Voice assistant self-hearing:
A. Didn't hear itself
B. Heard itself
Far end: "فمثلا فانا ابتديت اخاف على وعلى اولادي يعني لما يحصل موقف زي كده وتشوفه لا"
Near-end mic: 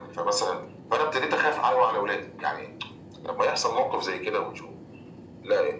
B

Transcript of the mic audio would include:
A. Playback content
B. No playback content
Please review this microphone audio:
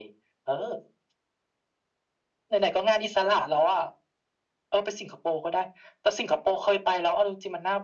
A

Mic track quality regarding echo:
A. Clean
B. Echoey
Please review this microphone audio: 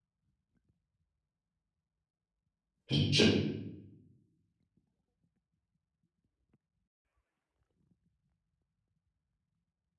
A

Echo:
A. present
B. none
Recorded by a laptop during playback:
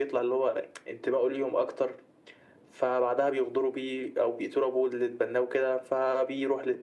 A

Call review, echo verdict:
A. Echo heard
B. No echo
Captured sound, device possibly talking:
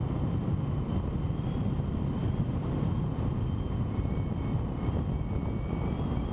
B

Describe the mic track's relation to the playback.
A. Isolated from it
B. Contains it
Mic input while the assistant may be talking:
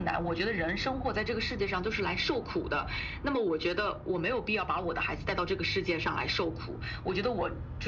B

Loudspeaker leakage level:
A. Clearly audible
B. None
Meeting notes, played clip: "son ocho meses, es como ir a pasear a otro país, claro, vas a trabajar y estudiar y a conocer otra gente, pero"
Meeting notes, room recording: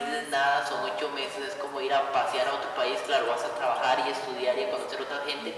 A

